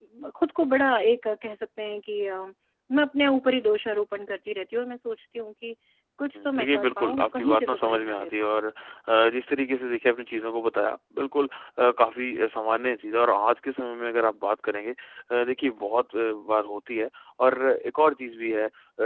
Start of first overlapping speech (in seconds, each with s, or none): 6.4 s